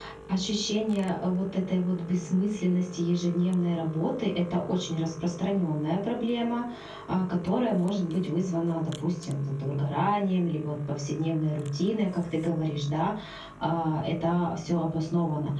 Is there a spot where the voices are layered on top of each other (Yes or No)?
No